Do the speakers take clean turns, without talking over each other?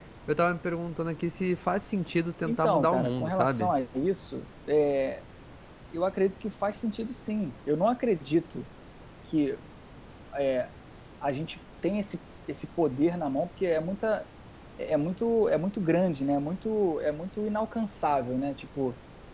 No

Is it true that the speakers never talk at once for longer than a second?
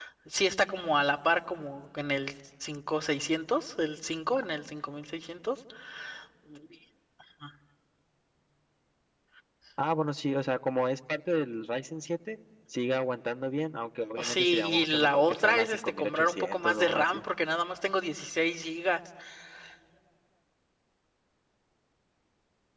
No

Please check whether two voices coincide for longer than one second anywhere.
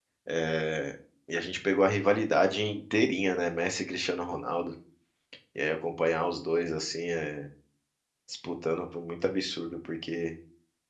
No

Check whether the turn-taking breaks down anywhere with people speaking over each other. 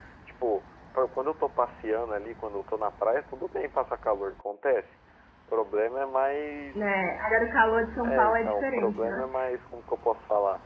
Yes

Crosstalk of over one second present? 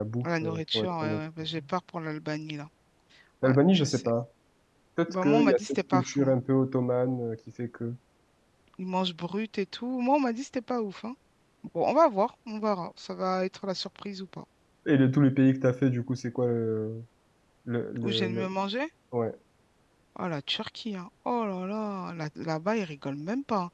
Yes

